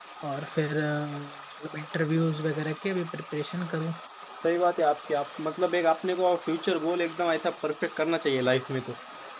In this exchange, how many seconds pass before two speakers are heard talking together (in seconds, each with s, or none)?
none